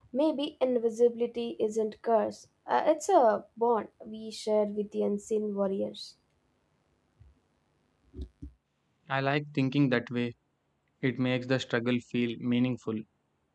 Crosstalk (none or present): none